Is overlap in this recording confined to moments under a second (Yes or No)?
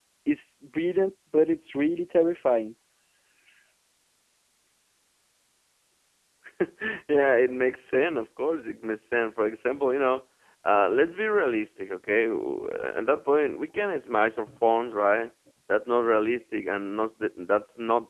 Yes